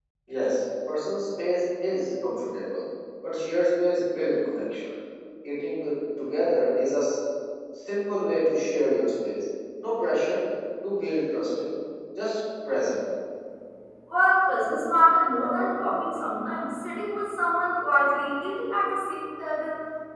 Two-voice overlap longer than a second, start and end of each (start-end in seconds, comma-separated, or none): none